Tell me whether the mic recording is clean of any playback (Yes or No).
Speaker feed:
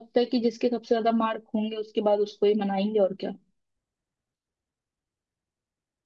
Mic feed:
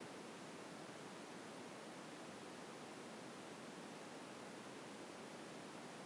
Yes